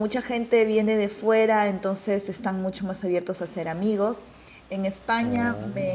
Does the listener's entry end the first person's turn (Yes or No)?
No